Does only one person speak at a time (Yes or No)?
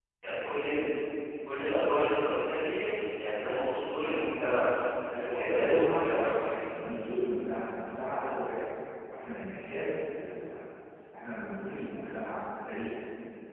No